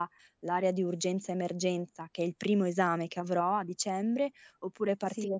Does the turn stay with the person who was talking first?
Yes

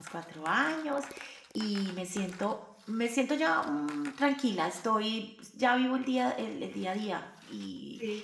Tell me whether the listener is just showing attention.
Yes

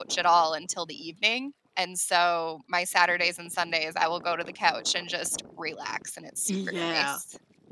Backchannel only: No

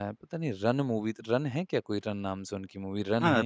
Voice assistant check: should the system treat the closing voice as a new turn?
Yes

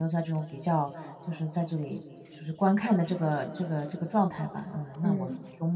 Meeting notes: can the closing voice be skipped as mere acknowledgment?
Yes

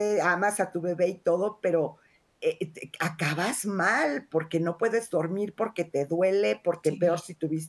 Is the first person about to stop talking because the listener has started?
No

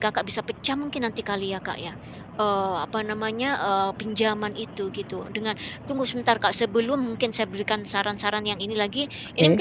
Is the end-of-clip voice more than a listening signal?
No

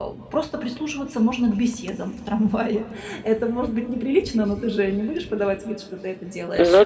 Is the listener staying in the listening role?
Yes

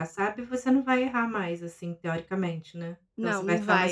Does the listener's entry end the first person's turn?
Yes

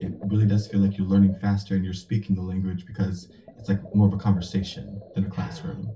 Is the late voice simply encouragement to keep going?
No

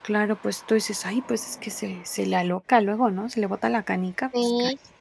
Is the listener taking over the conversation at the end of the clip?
Yes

